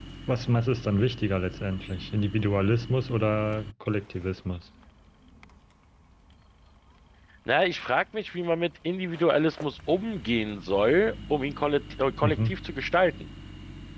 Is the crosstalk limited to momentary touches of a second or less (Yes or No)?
Yes